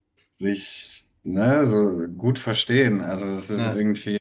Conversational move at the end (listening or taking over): listening